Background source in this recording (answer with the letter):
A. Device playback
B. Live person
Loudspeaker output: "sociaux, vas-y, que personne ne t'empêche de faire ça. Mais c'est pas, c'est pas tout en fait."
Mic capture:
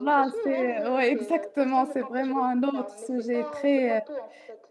A